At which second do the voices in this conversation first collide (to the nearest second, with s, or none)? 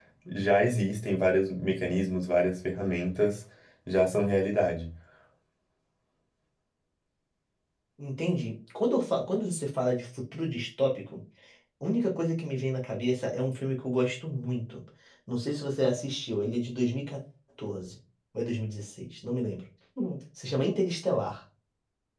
none